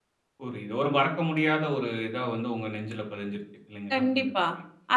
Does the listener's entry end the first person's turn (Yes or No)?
Yes